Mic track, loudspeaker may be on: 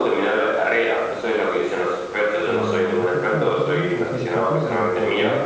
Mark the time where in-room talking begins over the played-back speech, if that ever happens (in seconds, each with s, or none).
2.4 s